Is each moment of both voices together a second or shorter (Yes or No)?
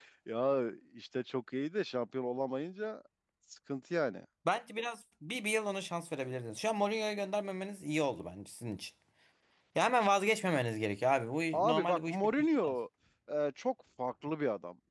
No